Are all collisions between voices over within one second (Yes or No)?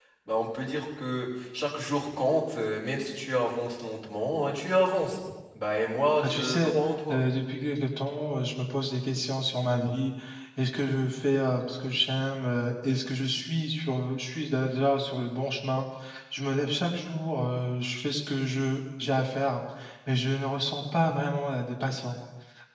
Yes